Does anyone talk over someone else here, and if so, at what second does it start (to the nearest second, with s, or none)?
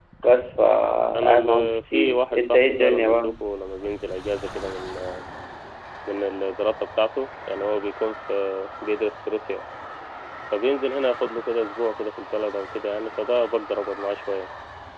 1 s